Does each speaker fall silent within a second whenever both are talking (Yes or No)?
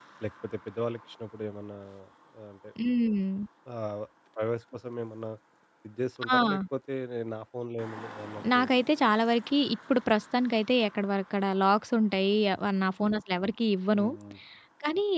Yes